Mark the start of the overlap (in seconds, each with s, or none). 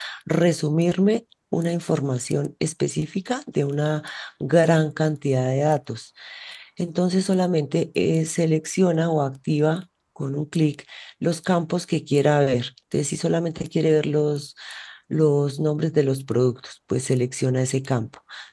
none